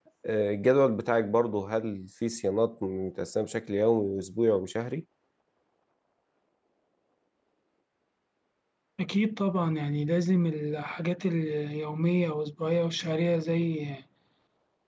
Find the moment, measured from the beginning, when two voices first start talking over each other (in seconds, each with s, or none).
none